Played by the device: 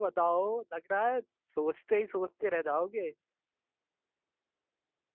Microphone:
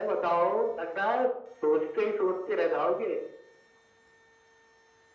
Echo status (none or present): present